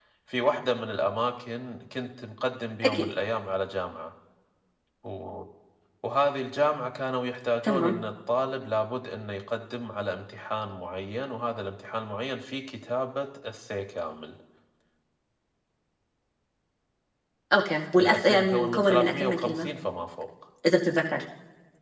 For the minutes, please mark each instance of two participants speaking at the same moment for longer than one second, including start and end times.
18.0-19.7

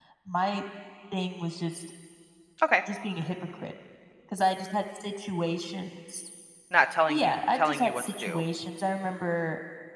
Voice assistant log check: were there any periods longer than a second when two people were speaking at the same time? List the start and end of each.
7.1-8.4

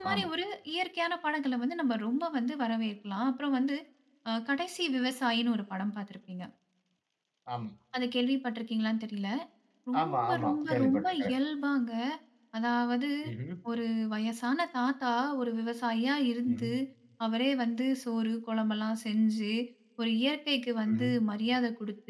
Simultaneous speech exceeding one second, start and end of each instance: 10.0-11.3

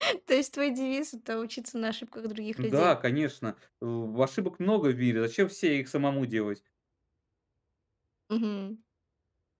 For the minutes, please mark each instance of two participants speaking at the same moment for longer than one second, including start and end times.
none

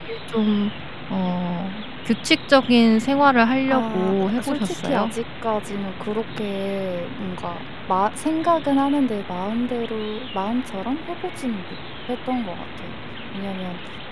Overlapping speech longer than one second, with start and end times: 3.7-5.1

